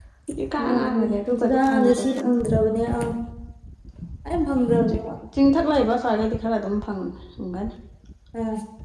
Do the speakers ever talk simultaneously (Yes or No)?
Yes